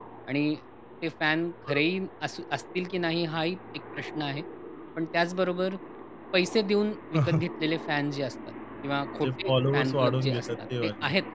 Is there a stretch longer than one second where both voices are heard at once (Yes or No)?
Yes